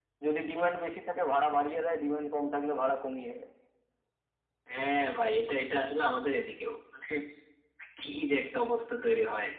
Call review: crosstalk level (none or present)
none